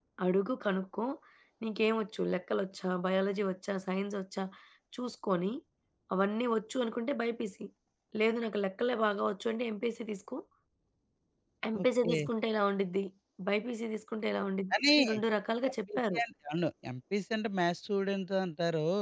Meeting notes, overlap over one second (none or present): none